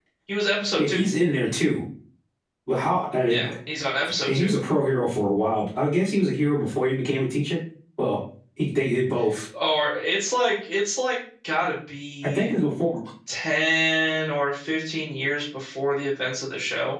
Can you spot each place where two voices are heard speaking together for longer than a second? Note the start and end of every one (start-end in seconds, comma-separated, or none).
none